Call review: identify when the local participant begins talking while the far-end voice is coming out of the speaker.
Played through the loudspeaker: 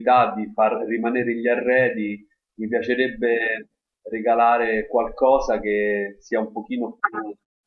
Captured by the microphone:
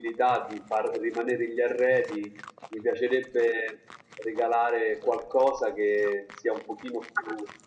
none

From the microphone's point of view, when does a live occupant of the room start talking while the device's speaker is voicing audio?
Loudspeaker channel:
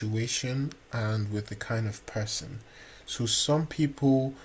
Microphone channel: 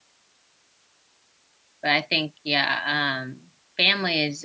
2 s

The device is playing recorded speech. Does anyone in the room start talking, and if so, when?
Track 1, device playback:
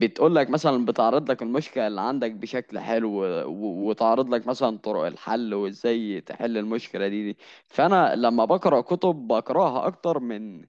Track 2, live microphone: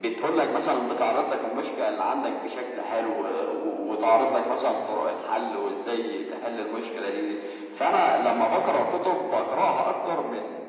none

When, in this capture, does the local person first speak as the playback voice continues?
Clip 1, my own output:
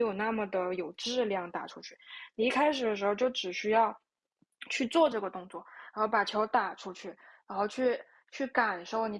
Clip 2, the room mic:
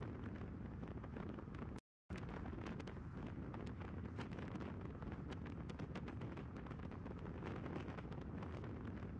none

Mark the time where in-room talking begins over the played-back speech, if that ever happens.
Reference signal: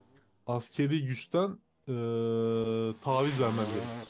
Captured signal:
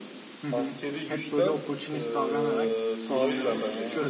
0 s

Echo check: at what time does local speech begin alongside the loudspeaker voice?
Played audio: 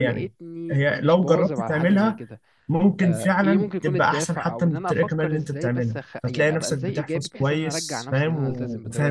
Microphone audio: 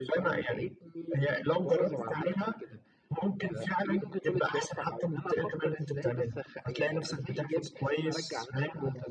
none

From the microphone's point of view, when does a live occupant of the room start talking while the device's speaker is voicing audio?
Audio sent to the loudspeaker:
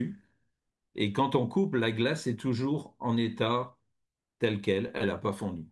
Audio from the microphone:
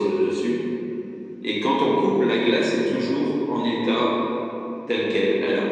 none

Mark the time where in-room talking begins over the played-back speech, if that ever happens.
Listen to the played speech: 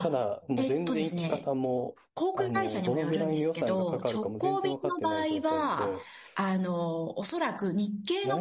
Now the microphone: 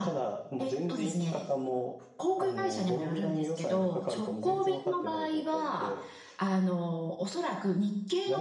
none

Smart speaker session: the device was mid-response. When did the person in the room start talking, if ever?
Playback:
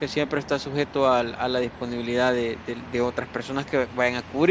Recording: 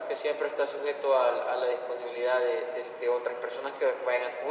none

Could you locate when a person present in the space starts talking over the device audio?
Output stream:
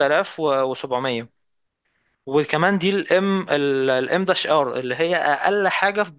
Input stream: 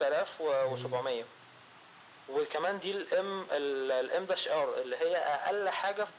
1 s

